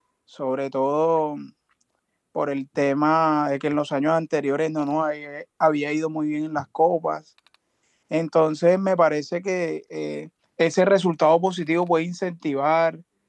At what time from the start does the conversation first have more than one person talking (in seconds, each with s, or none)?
none